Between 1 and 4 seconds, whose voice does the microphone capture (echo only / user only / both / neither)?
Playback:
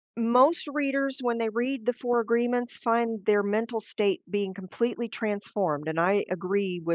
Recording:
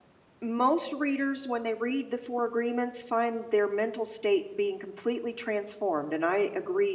echo only